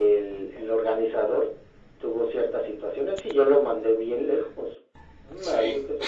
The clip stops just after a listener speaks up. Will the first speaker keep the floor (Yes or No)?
Yes